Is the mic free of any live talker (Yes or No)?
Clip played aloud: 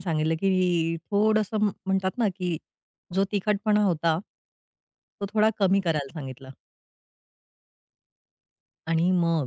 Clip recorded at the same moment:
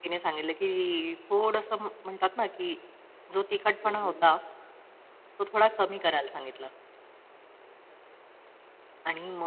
No